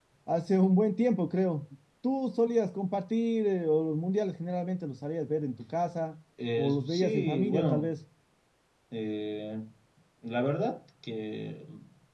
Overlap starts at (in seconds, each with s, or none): 6.4 s